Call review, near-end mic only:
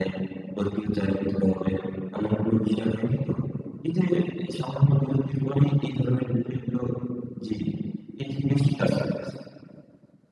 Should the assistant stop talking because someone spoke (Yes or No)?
No